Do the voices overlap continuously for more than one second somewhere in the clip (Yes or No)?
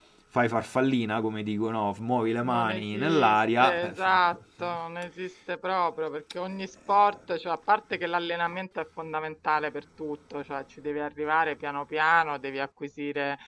Yes